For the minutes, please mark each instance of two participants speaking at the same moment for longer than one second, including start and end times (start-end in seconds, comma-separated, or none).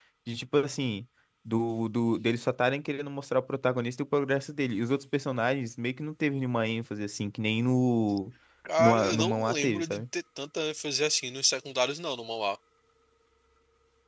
8.8-10.0